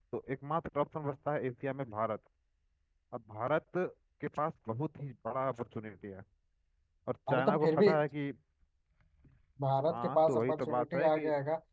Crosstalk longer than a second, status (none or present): present